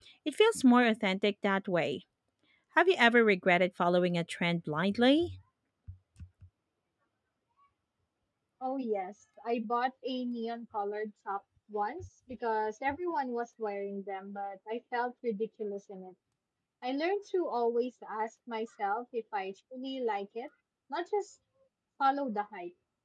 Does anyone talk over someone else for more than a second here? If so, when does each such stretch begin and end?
none

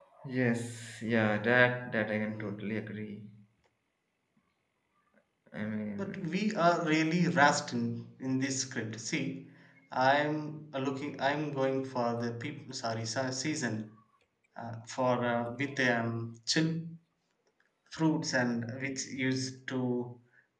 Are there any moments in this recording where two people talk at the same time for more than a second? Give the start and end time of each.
none

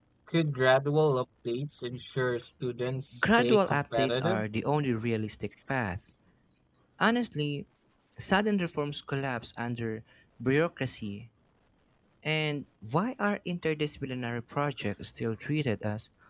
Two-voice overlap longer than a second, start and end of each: 3.2-4.4

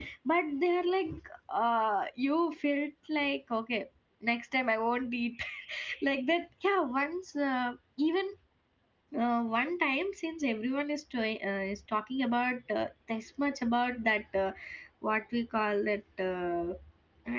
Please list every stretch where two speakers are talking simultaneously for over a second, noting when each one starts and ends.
none

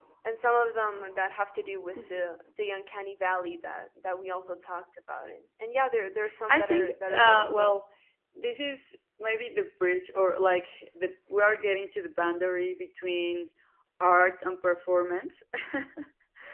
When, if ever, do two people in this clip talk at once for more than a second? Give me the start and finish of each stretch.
6.5-7.8

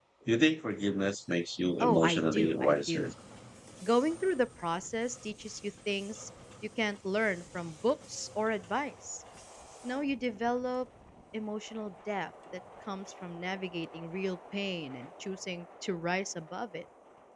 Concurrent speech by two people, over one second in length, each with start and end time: 1.8-3.1

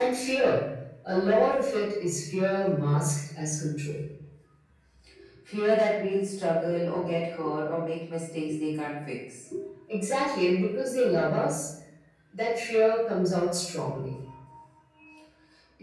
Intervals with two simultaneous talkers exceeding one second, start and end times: none

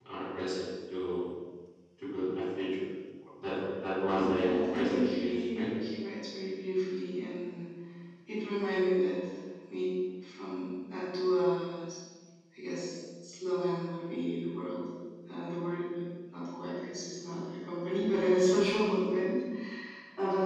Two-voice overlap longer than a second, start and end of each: 4.4-5.7

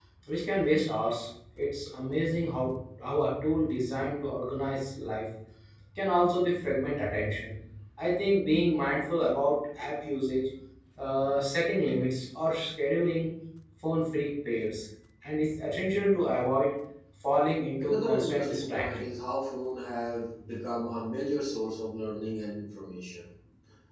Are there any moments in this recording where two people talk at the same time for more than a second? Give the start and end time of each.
17.8-19.1

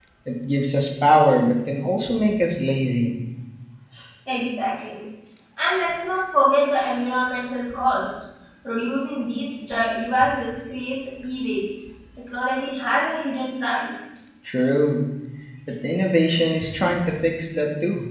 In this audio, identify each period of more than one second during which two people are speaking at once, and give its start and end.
none

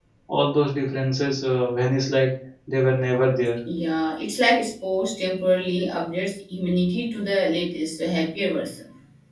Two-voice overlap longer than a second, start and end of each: none

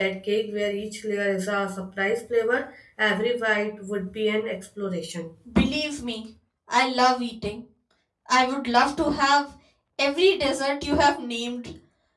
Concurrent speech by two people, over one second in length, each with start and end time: none

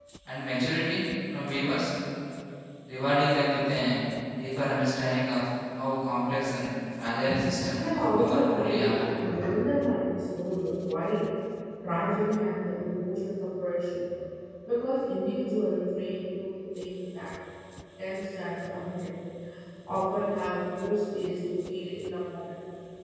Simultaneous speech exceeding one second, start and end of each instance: 7.8-9.0

